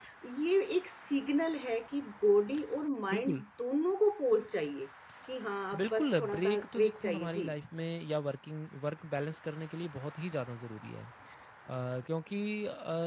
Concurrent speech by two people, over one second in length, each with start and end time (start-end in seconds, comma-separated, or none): 5.8-7.5